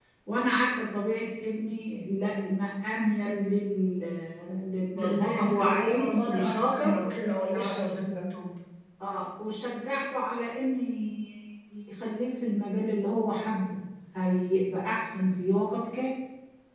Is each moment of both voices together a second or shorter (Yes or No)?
No